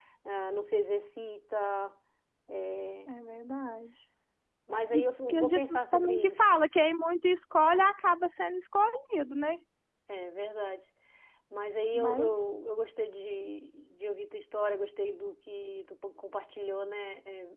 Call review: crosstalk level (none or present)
present